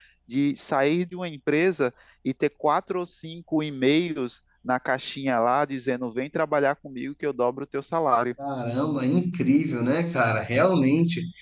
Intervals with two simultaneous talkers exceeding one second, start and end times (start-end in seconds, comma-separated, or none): none